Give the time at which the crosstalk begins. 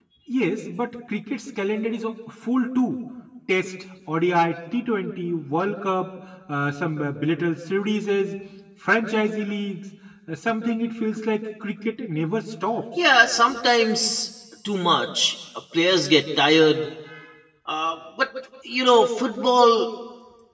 none

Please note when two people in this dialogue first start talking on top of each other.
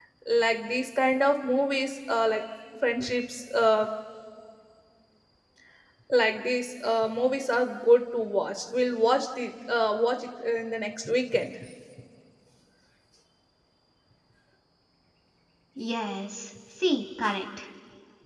none

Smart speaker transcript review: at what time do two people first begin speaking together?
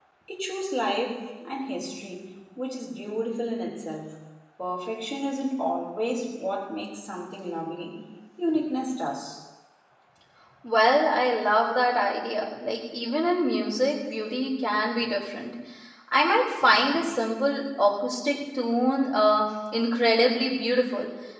none

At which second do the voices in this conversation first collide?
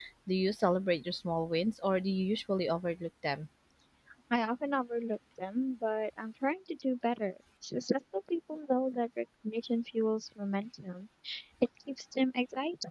none

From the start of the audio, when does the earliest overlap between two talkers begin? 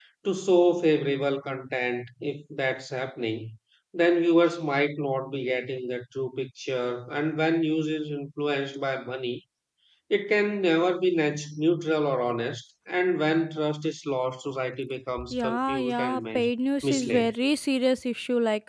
15.2 s

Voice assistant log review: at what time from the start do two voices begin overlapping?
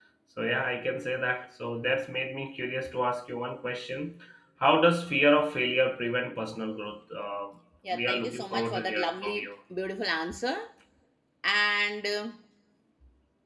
7.8 s

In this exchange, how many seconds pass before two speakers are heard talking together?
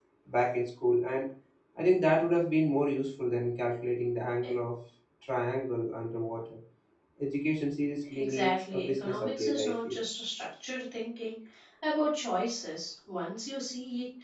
8.1 s

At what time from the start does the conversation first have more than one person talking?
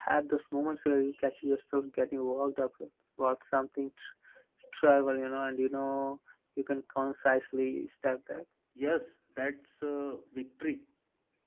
none

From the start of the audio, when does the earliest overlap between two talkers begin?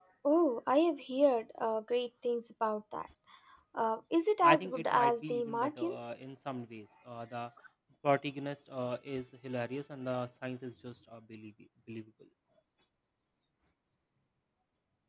4.4 s

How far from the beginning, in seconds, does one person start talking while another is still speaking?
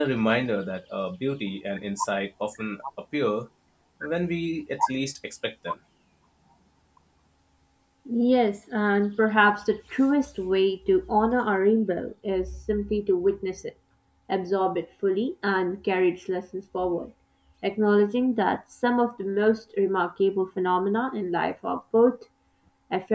none

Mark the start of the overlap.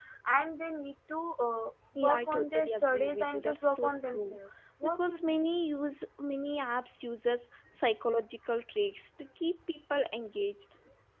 1.9 s

